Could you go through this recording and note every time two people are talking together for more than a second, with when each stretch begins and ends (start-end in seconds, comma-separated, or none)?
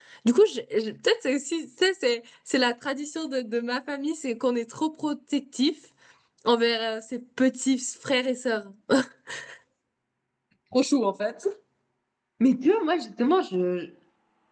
none